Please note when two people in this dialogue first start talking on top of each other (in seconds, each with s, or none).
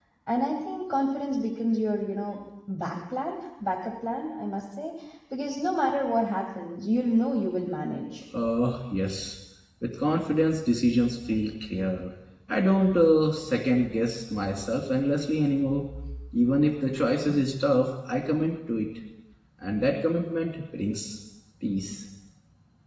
none